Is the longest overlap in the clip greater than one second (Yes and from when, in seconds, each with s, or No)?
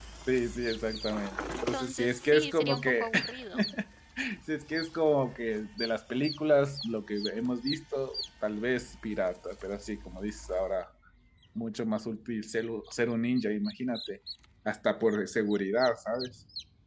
Yes, from 1.5 s